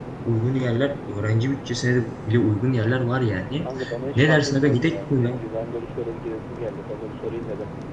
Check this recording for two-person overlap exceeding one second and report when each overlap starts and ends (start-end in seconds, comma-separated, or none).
4.2-5.4